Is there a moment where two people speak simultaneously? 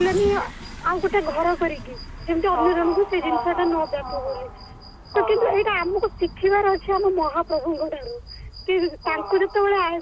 Yes, from 2.5 s

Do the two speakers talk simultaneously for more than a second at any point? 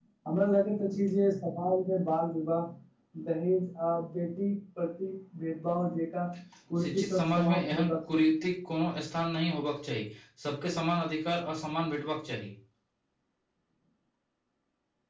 Yes, from 6.8 s

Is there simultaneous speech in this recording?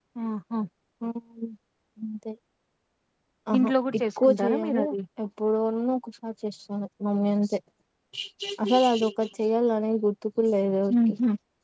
Yes, from 3.6 s

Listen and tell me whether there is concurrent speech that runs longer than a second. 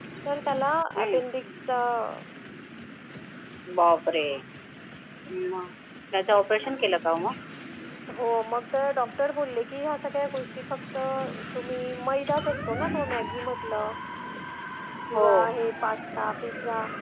No

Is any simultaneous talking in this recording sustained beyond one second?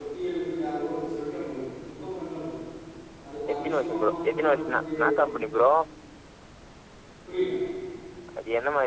Yes, from 3.6 s

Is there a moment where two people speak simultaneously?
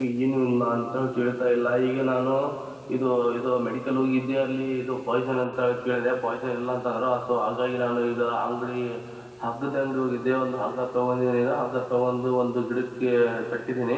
No

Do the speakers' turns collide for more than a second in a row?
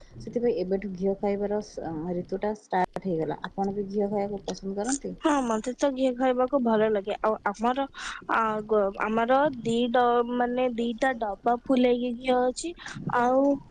No

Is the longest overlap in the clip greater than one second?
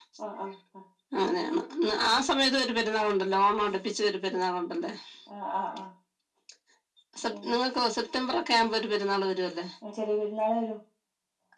No

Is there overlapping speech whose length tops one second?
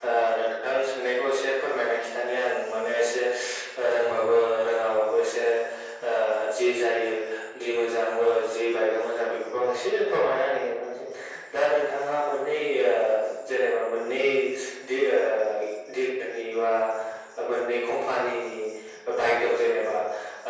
No

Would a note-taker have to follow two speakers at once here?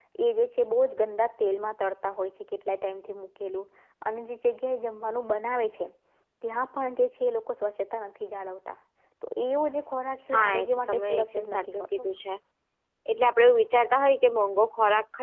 Yes, from 10.3 s

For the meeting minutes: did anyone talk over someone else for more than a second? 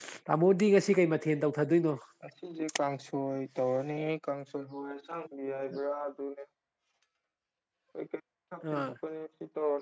No

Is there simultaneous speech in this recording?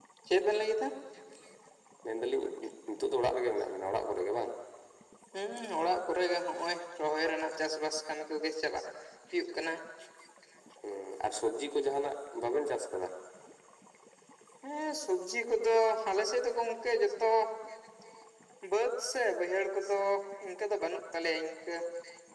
No

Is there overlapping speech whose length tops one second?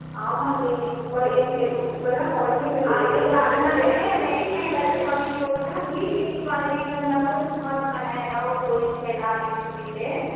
Yes, from 2.8 s

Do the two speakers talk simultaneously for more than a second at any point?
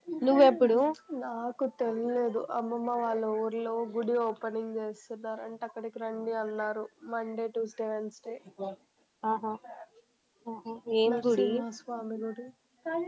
No

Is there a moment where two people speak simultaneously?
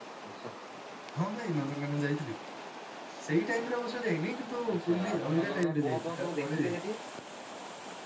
Yes, from 4.6 s

